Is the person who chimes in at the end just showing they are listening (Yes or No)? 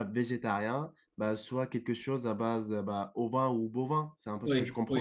No